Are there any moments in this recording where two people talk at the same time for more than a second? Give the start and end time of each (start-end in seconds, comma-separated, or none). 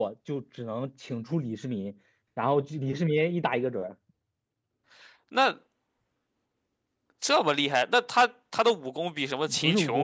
none